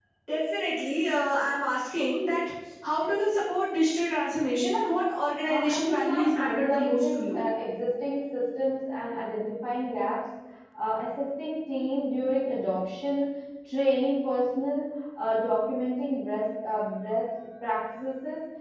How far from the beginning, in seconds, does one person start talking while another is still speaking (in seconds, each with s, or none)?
5.5 s